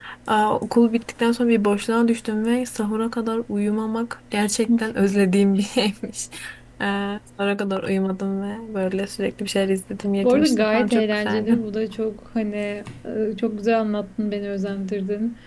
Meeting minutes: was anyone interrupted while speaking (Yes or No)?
Yes